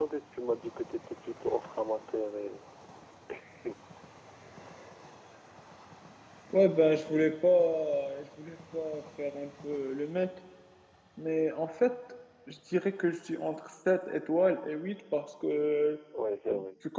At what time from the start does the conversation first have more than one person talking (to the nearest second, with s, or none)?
none